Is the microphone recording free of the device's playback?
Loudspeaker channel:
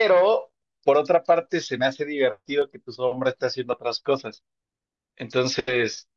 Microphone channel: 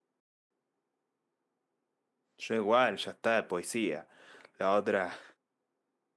Yes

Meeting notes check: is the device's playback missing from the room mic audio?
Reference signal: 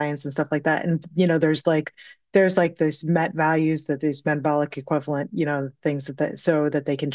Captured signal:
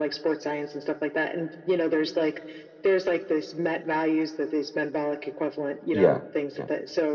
No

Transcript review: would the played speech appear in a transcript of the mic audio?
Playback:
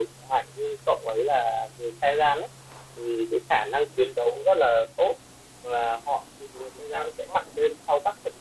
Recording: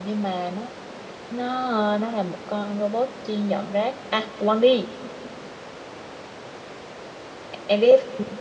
No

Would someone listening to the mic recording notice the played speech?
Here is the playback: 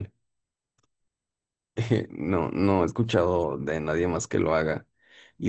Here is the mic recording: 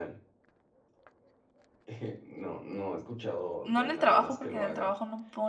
Yes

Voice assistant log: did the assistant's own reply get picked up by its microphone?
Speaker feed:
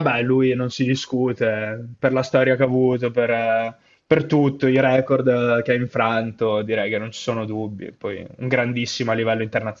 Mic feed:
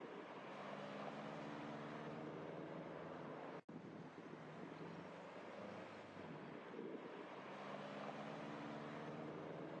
No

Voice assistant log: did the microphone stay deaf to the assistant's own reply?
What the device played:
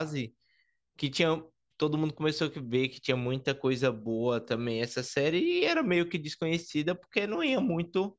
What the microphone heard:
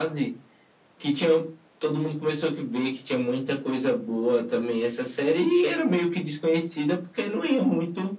No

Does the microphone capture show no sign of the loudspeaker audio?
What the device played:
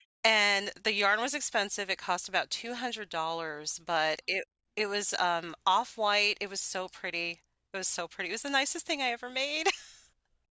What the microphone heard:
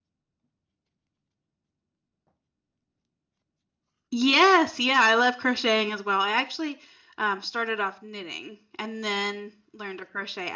Yes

